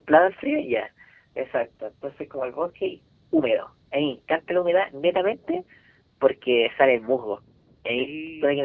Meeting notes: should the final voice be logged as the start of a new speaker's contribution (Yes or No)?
No